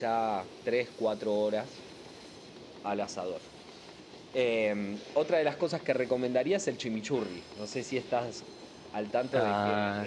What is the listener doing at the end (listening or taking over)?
taking over